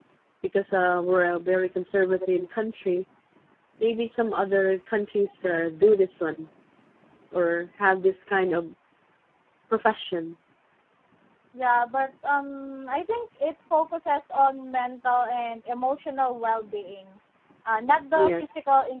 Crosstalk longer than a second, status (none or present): none